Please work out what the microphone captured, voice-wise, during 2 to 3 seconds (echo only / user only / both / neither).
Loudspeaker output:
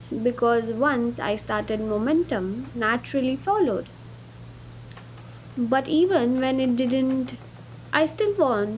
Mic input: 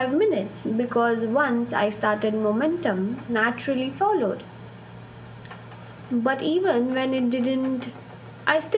echo only